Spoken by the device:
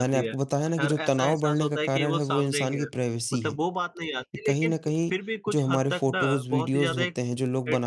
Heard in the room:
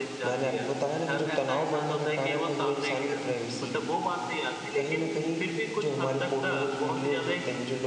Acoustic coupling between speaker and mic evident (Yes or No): Yes